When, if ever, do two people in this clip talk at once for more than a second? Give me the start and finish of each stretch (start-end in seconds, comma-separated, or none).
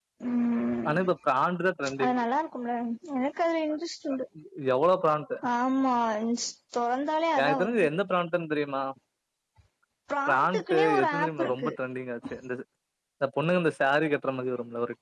10.3-11.7